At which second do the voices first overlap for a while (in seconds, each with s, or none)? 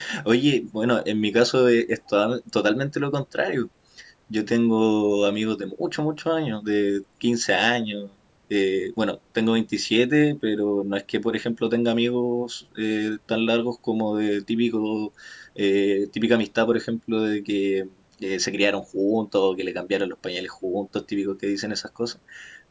none